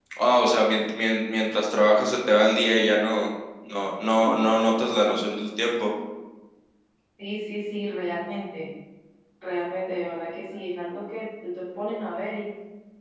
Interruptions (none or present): none